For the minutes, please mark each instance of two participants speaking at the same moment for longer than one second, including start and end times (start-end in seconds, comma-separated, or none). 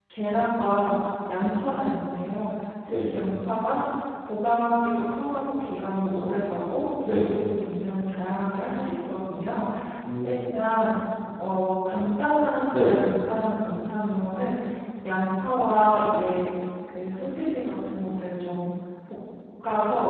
none